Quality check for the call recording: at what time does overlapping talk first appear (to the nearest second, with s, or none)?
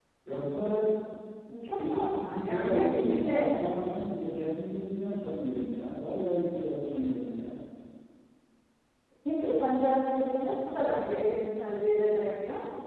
2 s